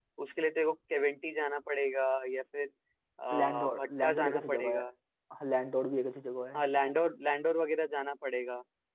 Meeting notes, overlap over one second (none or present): present